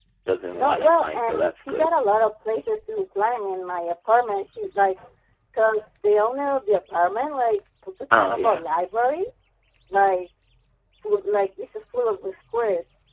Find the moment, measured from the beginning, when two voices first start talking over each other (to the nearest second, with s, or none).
1 s